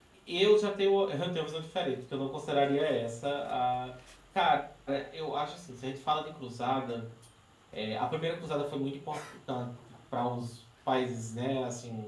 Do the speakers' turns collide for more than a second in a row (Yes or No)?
No